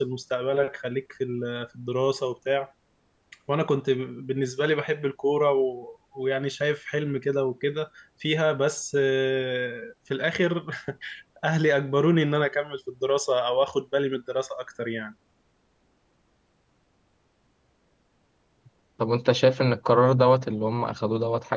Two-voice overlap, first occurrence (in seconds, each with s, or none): none